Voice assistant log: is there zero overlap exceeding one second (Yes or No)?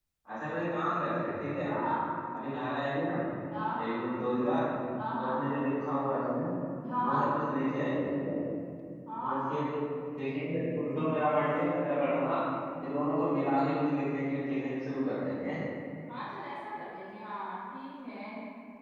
Yes